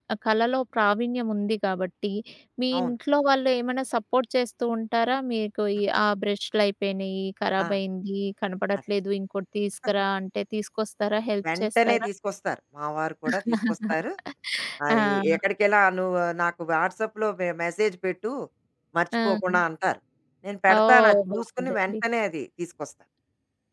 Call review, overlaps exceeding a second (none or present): present